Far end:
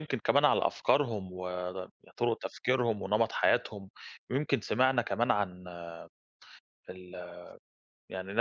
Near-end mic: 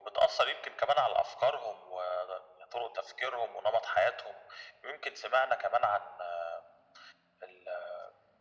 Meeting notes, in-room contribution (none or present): none